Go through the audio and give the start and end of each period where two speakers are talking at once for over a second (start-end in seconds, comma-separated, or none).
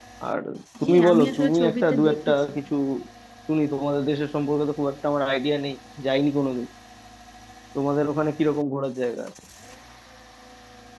0.8-2.4